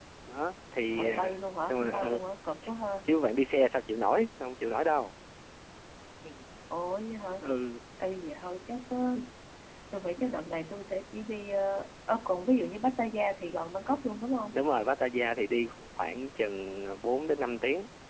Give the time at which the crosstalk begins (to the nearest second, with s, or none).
1 s